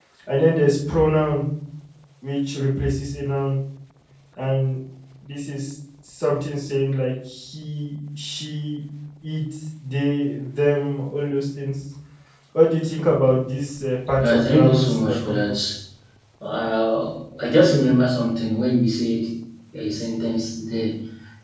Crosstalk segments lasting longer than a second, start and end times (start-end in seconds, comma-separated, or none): 14.2-15.6